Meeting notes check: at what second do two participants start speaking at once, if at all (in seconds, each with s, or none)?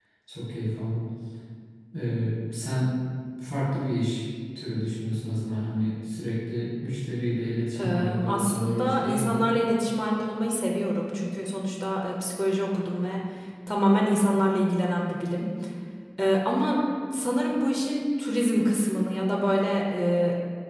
7.7 s